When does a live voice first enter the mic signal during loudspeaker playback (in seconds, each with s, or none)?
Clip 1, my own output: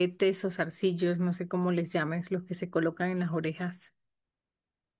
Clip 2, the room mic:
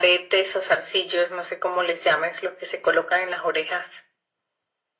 none